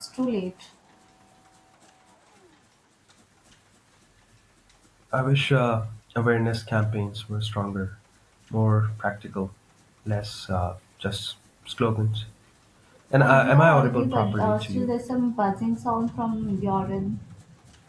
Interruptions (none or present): present